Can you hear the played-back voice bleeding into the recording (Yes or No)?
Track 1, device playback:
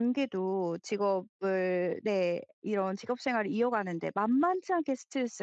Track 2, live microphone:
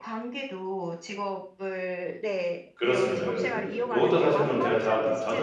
Yes